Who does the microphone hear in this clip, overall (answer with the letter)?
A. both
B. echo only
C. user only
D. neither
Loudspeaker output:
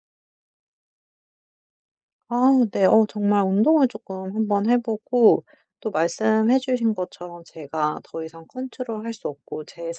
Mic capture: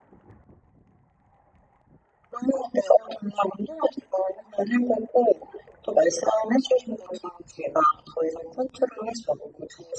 B